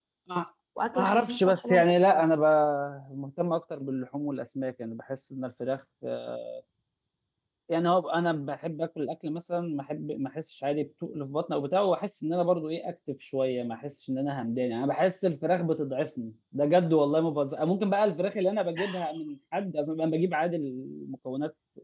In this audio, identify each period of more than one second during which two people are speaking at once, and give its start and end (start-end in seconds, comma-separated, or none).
0.9-2.3